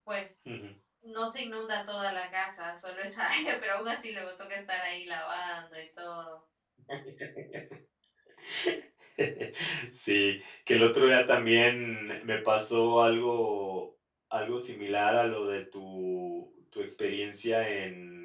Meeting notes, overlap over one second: none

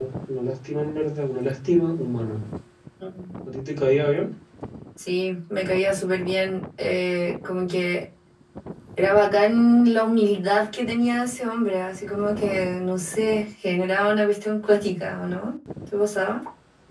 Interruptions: none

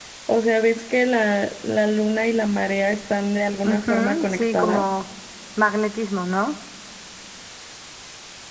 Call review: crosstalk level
present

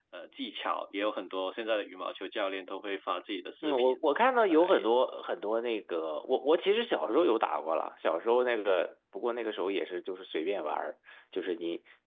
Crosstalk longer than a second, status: none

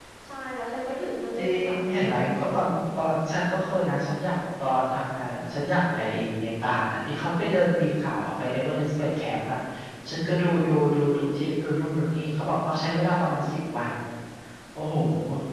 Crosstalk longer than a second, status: present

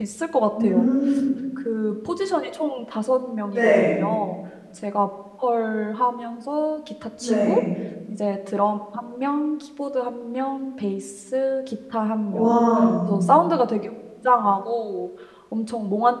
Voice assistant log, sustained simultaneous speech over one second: none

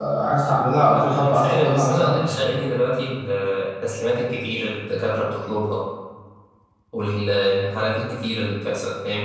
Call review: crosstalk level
present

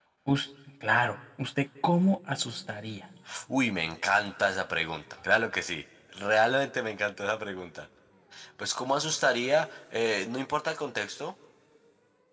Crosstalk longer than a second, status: none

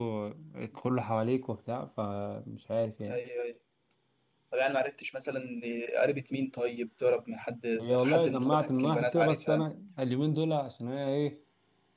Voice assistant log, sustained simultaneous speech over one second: present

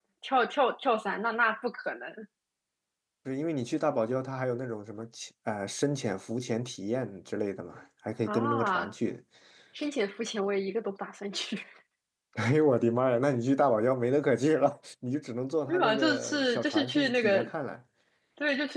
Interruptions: present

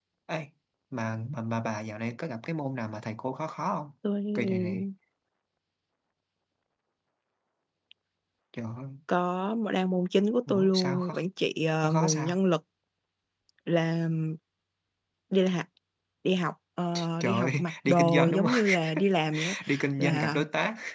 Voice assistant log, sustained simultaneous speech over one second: present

